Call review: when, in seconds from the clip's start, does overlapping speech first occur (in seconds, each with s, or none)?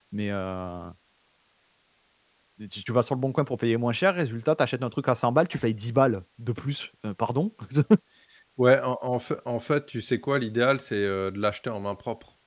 none